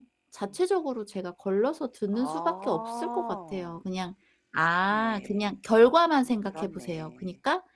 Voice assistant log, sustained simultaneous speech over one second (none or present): present